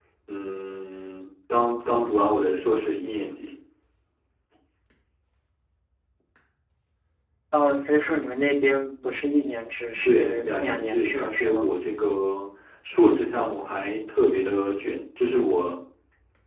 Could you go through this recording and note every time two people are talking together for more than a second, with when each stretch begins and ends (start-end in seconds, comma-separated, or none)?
10.0-11.7